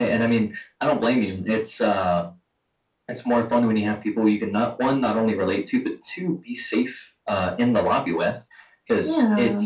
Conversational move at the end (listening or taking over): listening